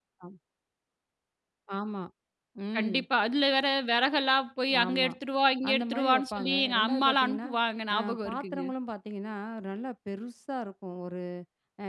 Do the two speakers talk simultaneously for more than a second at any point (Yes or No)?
Yes